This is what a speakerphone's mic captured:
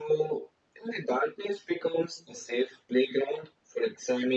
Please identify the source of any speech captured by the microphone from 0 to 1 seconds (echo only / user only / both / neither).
echo only